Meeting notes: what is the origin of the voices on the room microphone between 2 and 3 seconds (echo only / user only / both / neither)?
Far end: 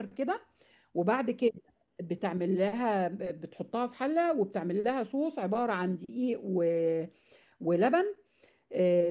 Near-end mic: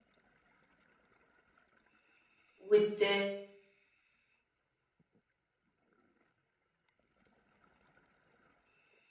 user only